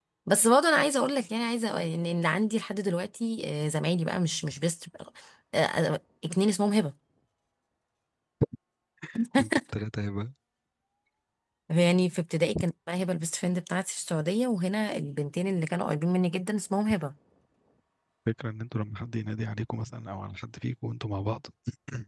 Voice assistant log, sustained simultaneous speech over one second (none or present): none